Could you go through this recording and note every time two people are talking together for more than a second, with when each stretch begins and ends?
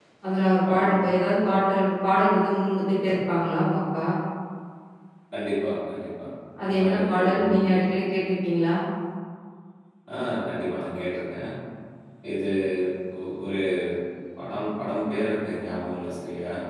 6.6-7.8

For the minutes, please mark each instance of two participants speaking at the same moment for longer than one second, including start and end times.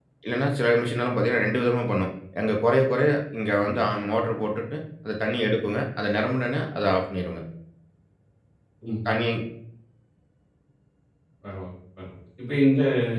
none

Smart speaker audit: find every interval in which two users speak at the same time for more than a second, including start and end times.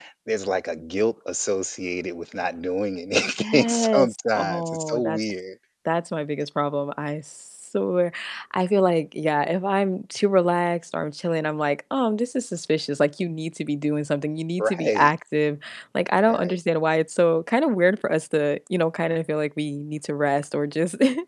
3.4-5.2

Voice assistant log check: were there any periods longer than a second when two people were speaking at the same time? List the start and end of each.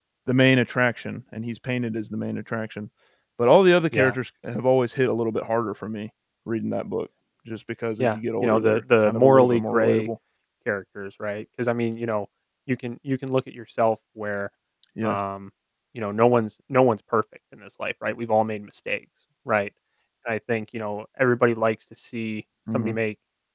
8.0-10.1

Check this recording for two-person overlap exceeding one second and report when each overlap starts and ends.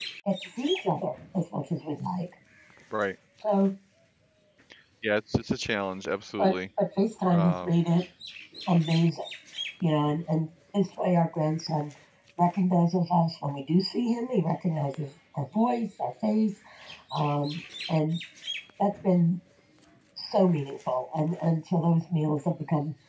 none

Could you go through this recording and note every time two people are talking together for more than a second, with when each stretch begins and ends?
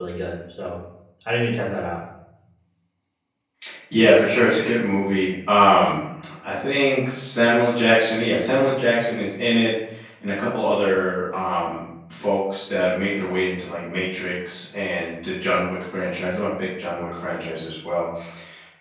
none

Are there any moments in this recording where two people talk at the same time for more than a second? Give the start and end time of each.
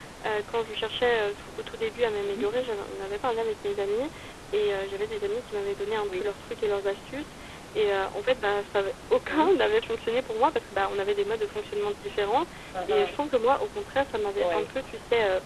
none

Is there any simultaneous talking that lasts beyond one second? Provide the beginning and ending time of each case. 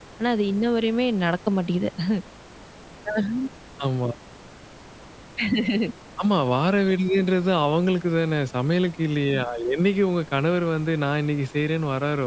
none

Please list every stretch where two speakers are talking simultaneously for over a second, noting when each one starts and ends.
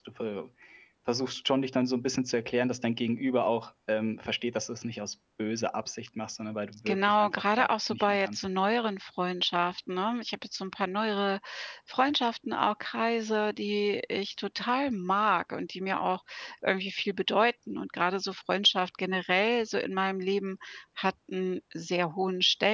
6.9-8.4

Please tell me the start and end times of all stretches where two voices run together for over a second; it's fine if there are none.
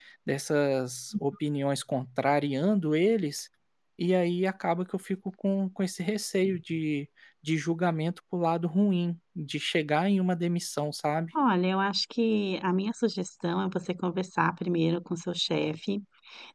none

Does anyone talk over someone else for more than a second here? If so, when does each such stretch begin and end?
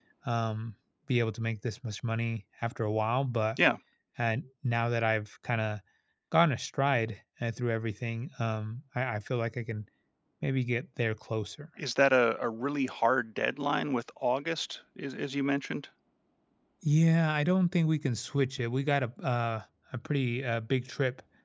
none

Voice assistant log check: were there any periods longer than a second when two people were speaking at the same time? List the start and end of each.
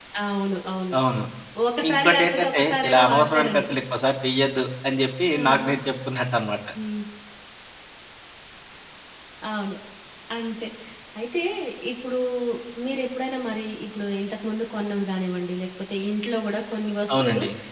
1.9-3.6

